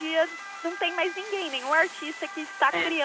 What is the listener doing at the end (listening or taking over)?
listening